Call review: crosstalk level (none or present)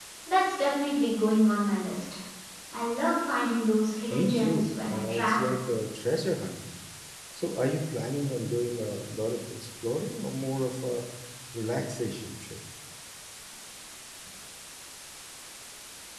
present